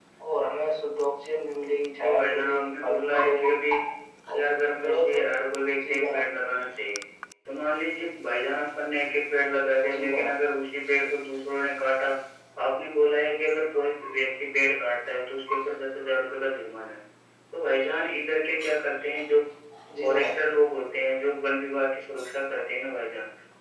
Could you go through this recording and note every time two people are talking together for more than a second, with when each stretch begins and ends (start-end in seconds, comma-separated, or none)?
2.0-3.5